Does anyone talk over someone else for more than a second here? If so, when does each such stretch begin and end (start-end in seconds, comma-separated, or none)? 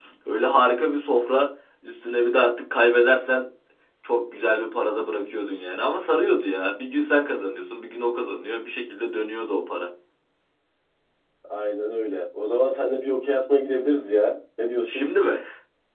none